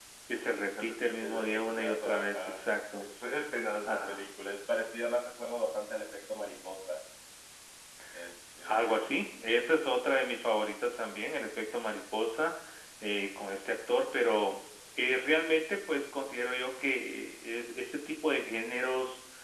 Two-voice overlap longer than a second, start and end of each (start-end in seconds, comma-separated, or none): 0.7-2.6